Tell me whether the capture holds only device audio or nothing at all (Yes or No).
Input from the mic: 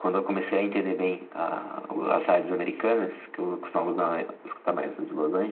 Yes